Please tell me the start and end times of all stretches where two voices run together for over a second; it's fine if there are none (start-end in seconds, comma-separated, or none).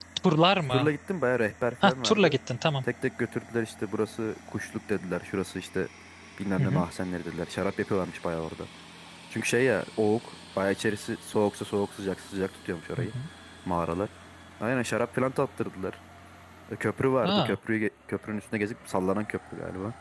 none